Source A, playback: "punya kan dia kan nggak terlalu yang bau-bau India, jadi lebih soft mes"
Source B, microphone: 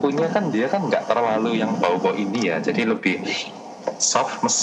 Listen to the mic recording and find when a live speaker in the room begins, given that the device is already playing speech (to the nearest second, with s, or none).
none